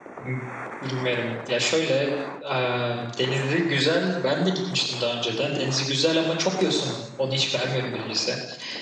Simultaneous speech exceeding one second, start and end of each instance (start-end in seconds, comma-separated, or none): none